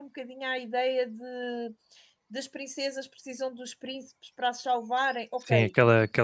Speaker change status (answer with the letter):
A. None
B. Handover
B